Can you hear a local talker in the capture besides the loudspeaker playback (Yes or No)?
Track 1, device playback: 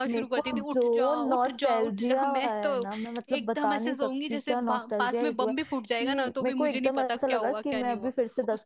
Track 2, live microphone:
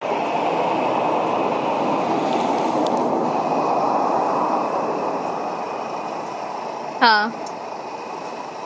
Yes